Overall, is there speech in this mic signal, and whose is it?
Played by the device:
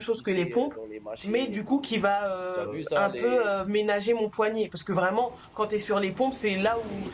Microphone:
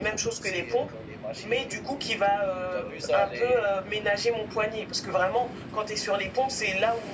echo only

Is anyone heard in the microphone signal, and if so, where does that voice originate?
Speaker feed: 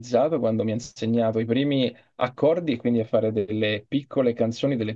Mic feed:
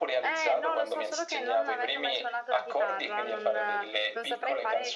both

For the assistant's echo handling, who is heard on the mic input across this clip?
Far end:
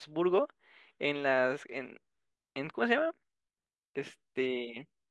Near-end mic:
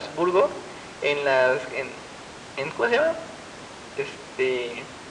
echo only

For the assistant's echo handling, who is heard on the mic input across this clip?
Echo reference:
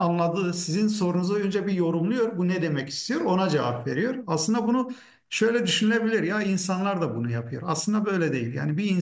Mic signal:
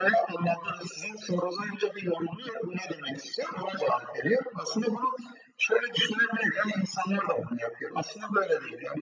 echo only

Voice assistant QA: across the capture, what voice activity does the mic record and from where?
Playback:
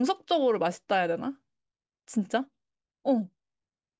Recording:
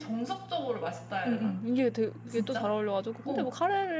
both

